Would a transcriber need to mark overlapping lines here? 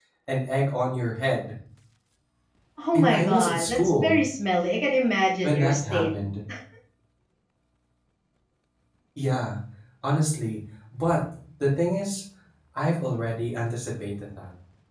Yes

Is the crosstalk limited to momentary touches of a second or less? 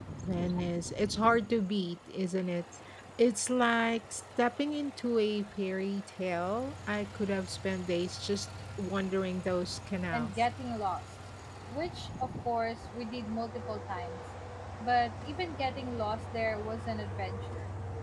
Yes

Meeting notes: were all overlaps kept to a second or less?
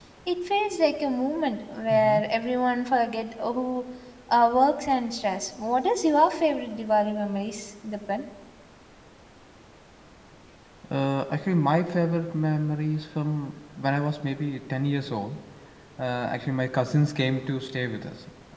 Yes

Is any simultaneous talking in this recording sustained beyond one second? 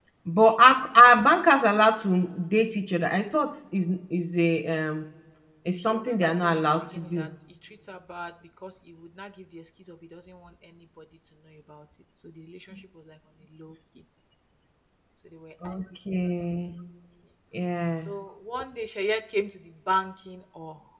Yes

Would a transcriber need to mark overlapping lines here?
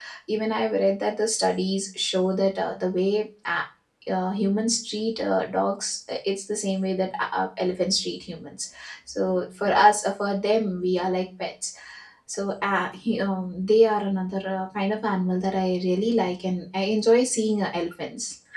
No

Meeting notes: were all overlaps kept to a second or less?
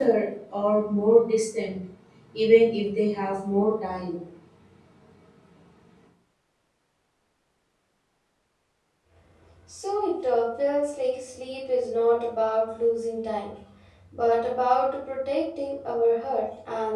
Yes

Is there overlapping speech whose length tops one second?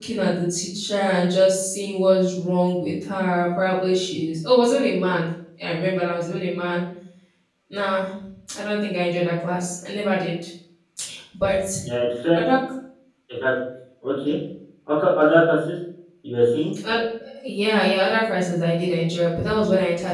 No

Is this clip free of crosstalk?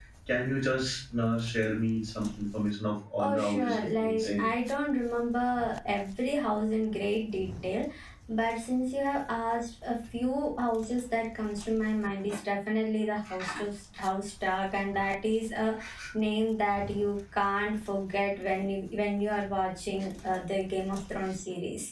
No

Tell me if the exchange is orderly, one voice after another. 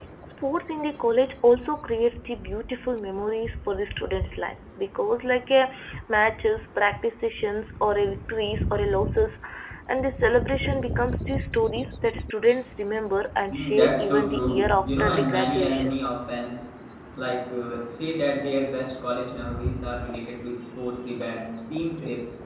No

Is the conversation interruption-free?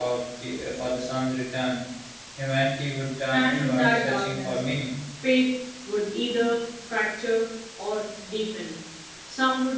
No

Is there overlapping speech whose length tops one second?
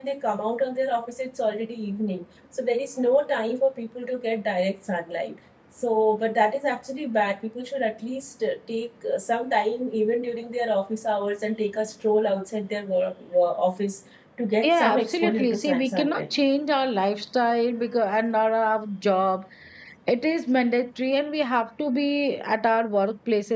Yes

